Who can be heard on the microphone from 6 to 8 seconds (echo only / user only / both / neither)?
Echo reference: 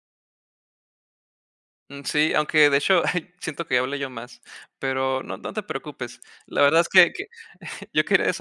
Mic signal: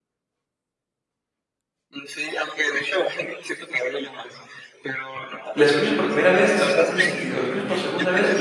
both